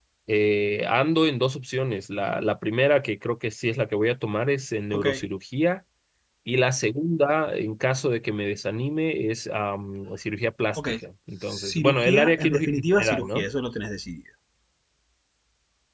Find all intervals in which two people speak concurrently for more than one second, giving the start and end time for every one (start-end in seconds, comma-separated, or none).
11.4-13.4